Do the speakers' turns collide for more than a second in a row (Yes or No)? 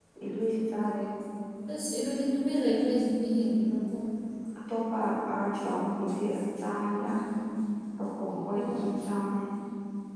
No